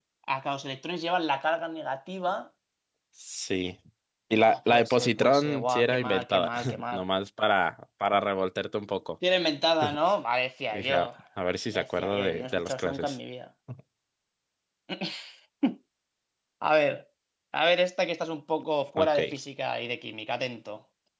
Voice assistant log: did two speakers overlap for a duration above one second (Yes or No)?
Yes